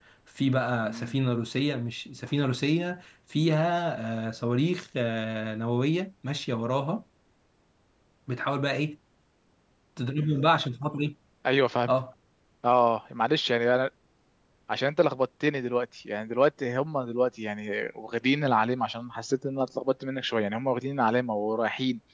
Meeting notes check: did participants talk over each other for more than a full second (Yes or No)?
No